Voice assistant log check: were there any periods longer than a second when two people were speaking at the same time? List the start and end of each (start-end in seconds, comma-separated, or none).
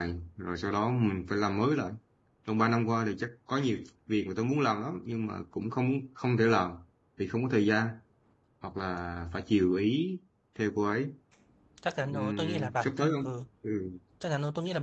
12.1-13.4